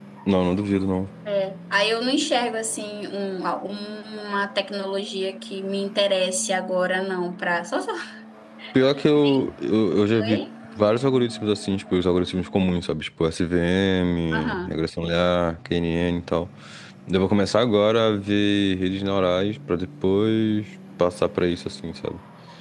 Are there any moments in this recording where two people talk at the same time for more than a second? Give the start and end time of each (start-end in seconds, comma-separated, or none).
none